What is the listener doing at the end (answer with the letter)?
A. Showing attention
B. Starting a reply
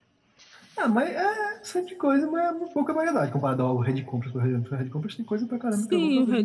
B